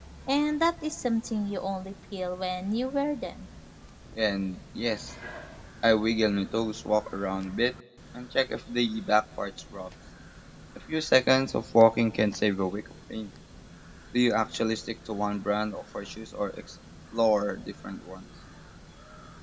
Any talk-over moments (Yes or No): No